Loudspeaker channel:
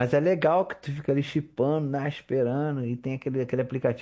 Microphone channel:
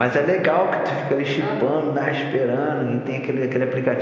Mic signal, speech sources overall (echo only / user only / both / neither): both